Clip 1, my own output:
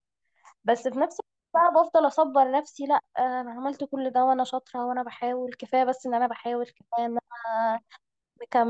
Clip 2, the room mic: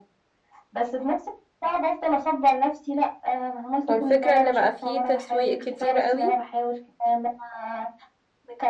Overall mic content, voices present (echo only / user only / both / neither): both